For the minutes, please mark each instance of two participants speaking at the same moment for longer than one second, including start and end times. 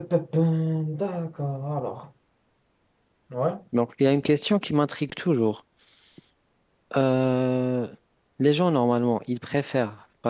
none

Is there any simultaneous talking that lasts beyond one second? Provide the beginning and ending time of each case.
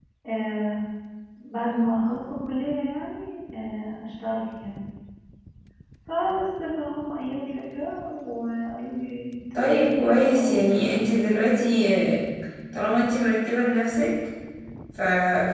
9.5-11.0

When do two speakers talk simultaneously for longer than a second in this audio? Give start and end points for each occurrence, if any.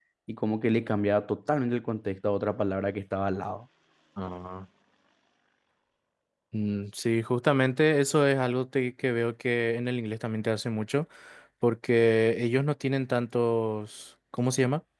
none

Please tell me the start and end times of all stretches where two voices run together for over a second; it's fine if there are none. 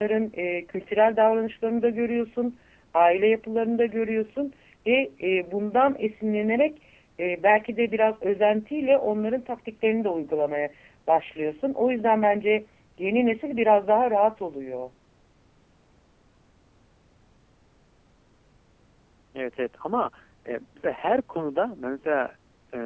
none

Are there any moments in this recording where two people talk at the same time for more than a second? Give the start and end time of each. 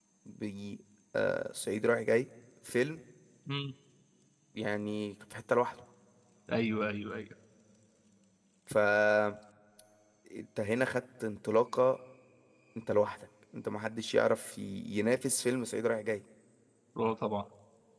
none

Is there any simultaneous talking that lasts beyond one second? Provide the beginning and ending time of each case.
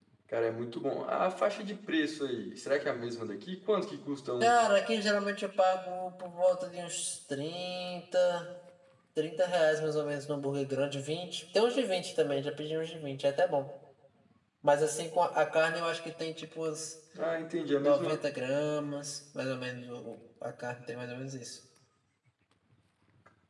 none

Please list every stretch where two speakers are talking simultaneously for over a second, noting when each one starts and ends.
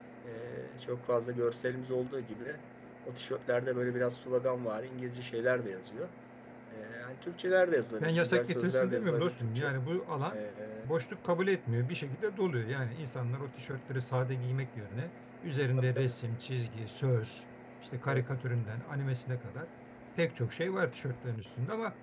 8.0-9.7

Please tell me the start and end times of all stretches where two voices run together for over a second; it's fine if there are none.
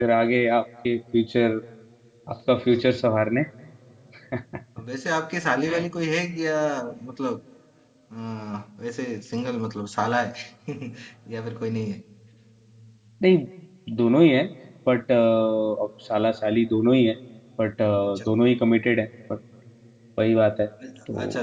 none

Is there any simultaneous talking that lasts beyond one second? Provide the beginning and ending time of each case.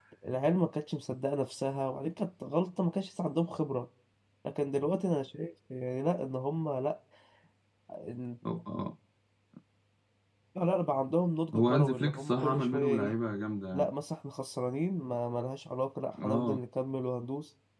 11.5-13.2

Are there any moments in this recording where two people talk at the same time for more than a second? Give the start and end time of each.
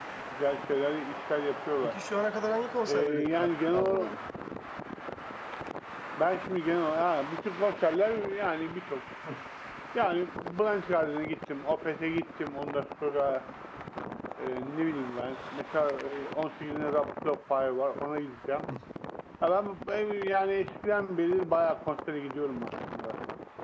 2.9-4.2

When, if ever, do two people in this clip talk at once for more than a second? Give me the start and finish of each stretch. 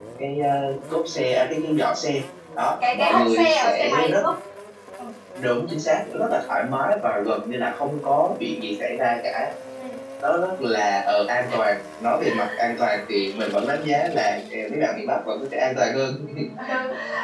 2.9-4.2

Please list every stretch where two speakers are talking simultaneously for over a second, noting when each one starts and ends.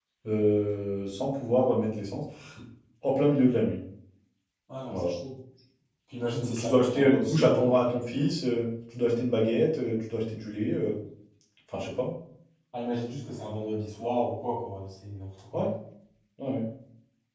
6.4-7.7

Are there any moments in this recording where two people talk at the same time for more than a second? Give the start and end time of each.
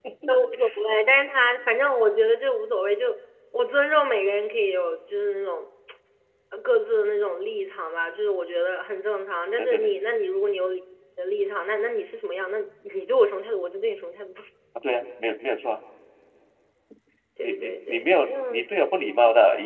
17.4-18.6

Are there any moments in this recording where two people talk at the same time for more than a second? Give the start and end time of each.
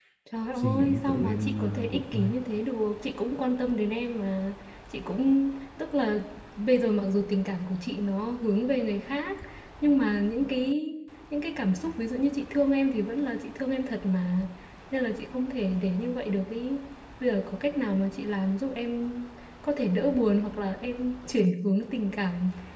0.6-2.4

